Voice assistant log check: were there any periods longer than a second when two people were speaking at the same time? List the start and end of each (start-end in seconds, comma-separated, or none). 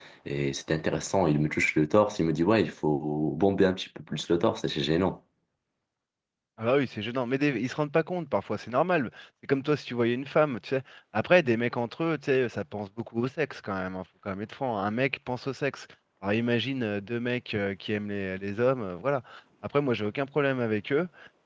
none